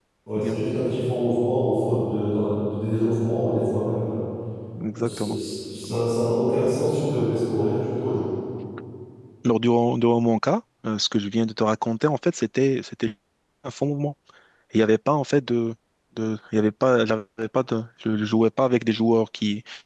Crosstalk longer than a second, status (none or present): none